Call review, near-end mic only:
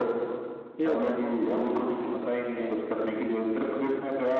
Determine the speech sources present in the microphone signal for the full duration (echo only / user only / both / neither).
both